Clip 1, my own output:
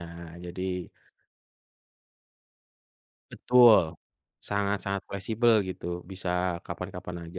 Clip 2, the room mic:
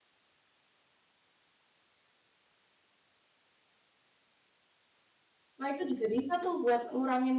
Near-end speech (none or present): present